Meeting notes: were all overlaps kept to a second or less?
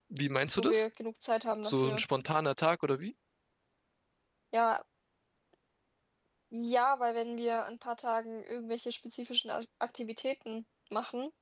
Yes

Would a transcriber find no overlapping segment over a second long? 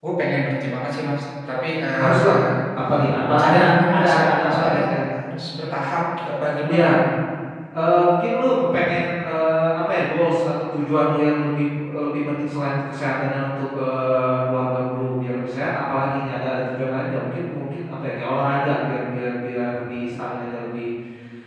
No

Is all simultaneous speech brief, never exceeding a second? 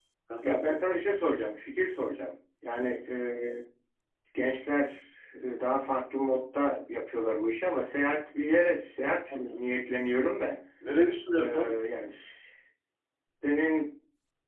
Yes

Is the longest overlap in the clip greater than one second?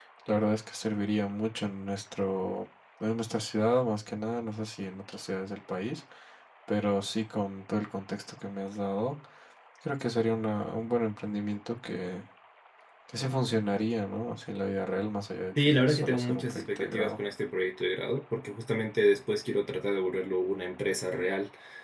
Yes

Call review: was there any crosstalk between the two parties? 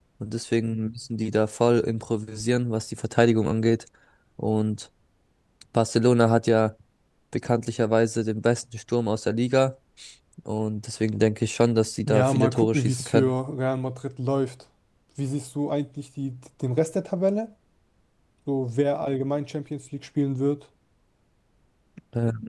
Yes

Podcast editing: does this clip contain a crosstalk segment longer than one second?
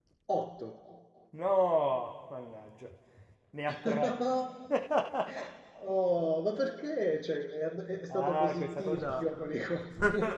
Yes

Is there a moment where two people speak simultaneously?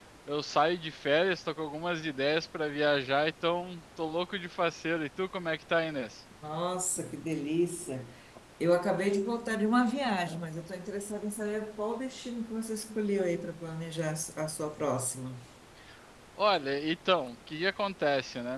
No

